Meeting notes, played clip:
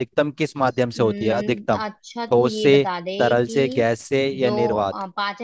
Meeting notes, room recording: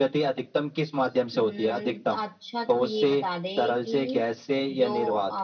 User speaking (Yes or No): No